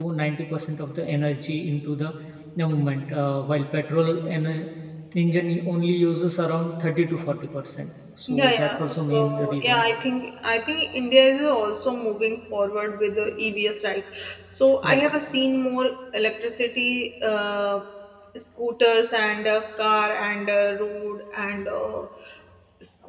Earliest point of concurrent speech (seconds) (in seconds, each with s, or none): 8.3 s